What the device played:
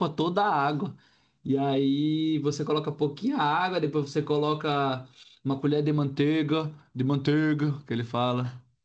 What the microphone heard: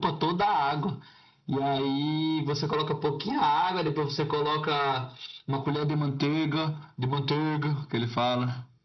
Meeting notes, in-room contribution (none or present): none